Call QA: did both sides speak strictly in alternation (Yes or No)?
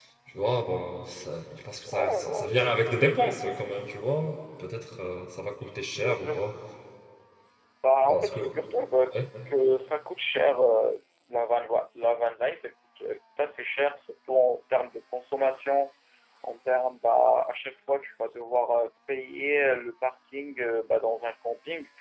No